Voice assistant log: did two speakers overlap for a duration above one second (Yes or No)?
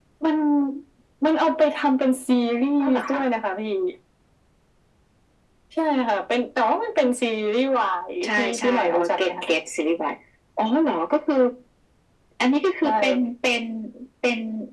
Yes